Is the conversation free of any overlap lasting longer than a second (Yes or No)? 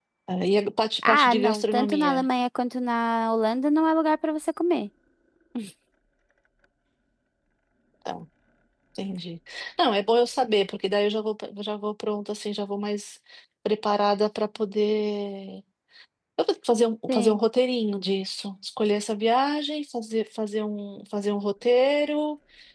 No